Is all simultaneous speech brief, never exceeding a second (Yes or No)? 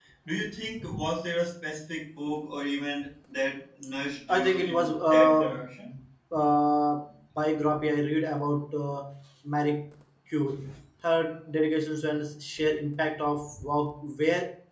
No